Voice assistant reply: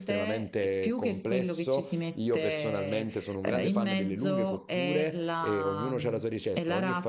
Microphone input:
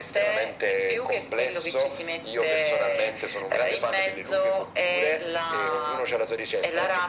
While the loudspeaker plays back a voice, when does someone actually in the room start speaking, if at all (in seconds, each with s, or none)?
none